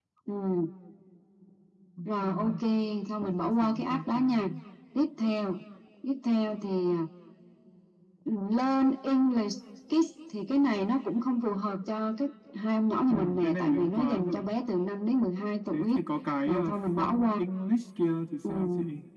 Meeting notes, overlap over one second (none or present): present